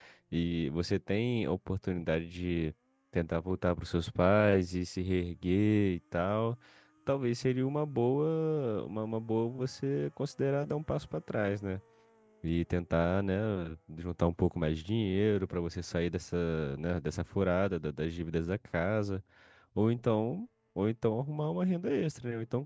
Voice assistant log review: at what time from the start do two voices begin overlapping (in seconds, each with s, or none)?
none